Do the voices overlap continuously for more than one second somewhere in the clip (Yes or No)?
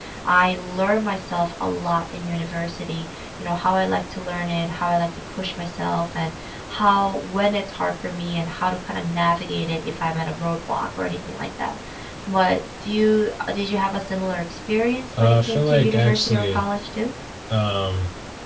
Yes